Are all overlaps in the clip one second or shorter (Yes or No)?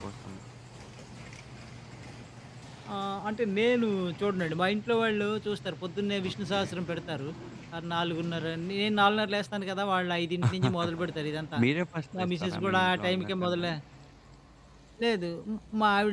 No